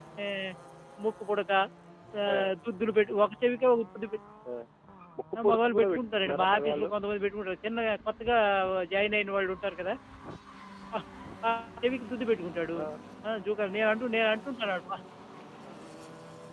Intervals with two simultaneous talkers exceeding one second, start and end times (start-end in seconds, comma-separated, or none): 5.4-6.9